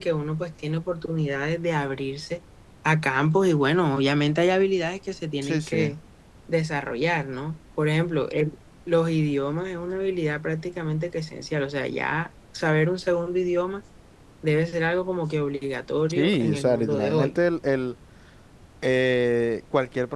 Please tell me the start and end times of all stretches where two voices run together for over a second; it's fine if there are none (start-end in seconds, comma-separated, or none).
16.1-17.3